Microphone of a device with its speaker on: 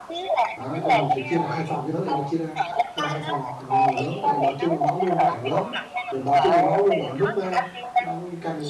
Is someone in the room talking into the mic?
Yes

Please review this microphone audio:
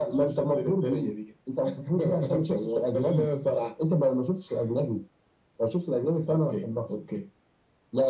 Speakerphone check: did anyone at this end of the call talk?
No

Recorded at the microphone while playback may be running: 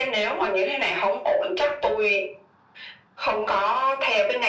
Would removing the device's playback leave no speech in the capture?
Yes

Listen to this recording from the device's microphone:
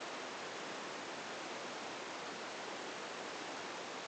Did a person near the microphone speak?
No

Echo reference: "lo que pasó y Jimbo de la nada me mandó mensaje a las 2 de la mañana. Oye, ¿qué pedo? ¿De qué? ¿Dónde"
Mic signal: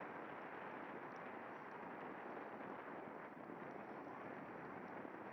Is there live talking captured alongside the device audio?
No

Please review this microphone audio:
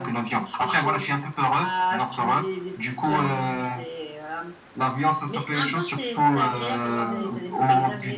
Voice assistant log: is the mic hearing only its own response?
Yes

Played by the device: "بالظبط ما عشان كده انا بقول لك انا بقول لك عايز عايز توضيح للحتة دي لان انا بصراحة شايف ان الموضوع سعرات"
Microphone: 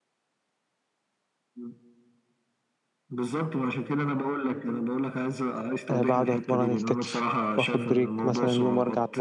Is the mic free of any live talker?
No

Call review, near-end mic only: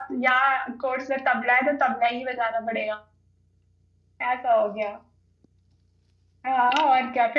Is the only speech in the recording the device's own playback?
No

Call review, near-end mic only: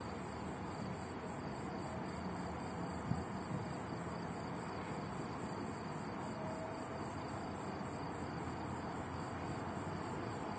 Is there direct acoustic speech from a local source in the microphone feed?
No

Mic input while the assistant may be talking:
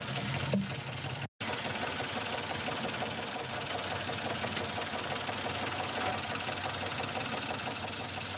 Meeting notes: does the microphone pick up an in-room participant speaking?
No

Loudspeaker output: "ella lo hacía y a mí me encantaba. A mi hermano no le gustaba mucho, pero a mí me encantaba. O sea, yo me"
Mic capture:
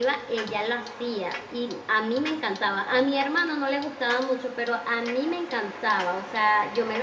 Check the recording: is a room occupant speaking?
No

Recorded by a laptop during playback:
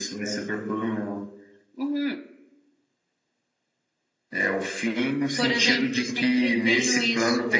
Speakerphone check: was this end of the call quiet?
Yes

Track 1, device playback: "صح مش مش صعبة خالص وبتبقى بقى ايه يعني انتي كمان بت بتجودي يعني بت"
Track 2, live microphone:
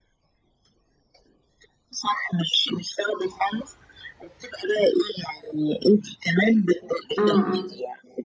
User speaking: Yes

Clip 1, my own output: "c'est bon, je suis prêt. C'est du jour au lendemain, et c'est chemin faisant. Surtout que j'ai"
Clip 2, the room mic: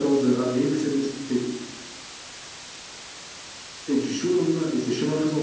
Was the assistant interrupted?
No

